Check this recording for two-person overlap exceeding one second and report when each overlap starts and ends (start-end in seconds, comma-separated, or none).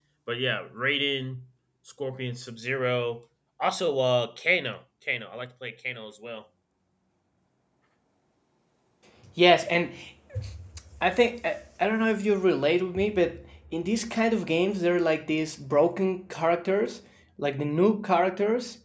none